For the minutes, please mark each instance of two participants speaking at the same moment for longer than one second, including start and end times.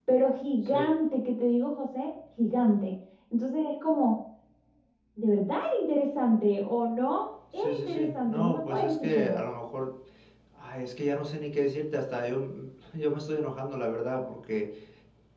7.5-9.4

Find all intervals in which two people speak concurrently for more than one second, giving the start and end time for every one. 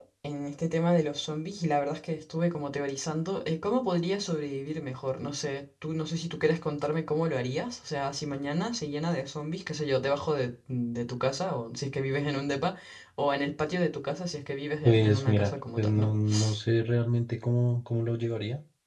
14.8-16.1

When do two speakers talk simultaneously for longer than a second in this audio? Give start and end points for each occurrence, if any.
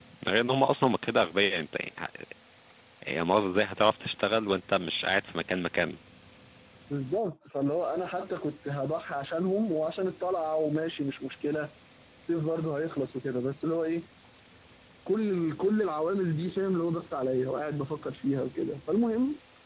none

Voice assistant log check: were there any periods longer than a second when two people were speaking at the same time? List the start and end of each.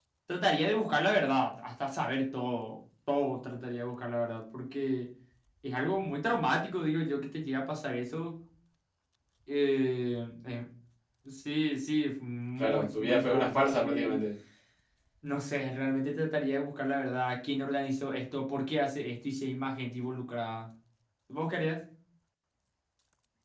12.6-14.2

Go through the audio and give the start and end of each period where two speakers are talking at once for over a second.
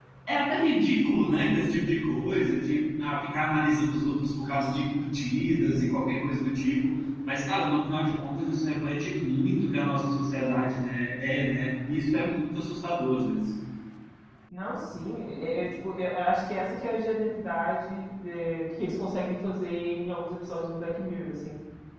none

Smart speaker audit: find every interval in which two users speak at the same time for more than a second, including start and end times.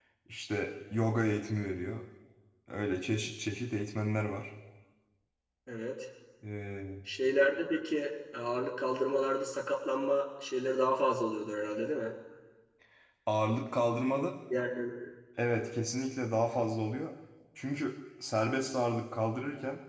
none

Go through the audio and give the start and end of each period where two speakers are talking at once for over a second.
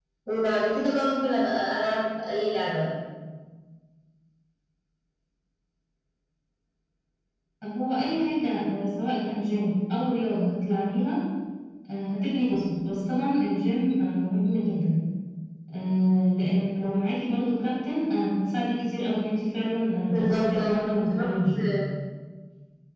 20.1-21.6

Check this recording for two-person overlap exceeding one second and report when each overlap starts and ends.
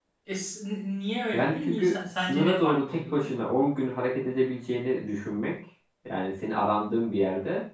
1.3-3.4

